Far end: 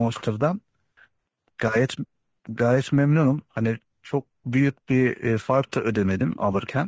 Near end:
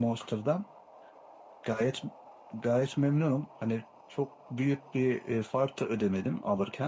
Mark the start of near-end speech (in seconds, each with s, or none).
none